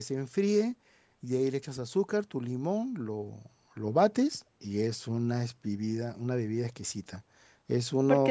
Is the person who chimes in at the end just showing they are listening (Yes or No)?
No